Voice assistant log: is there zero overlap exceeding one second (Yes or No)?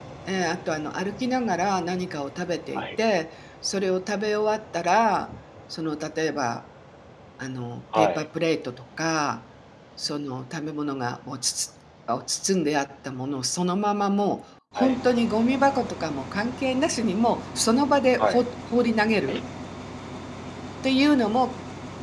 Yes